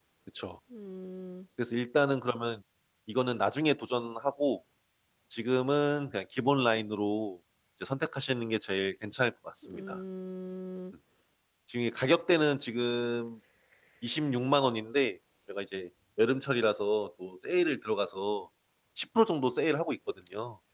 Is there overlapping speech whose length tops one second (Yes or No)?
No